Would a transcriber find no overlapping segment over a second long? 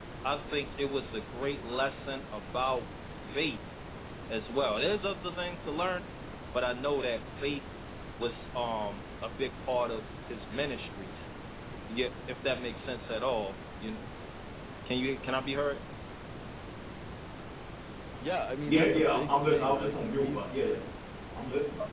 No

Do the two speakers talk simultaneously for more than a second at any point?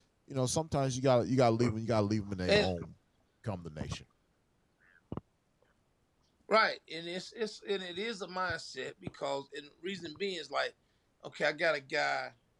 No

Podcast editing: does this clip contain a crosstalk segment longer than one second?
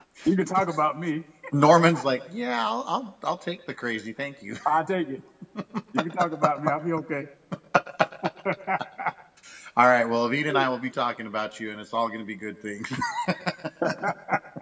No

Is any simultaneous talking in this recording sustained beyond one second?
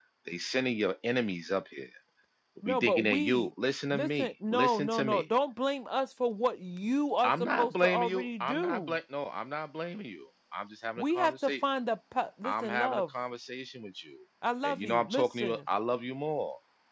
Yes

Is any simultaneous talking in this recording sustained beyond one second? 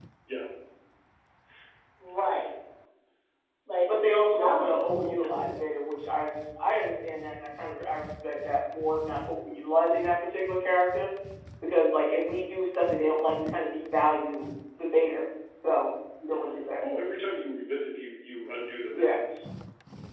Yes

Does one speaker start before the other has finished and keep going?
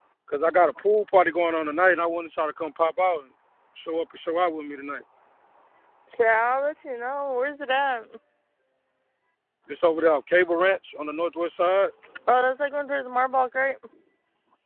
No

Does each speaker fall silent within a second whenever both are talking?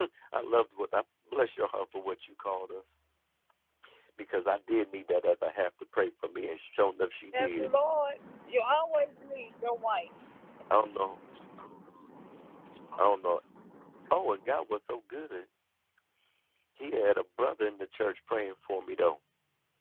Yes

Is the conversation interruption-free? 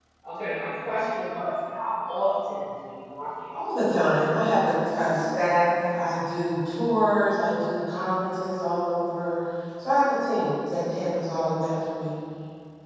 Yes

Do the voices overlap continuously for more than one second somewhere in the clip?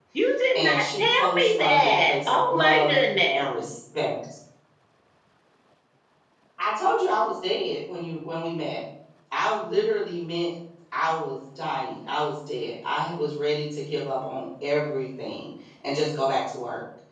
Yes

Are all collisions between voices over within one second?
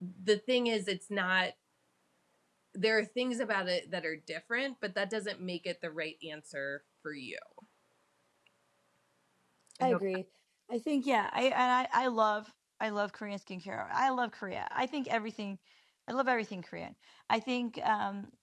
Yes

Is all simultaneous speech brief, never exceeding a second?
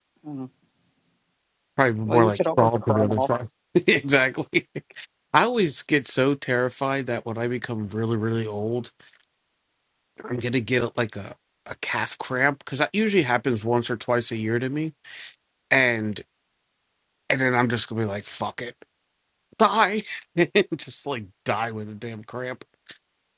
No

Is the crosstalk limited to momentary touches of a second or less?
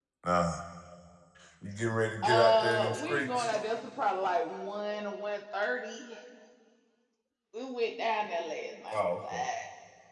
No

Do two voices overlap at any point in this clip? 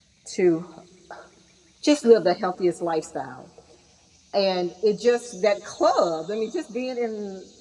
No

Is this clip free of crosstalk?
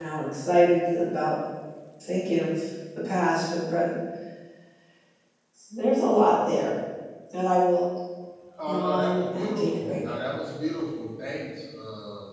No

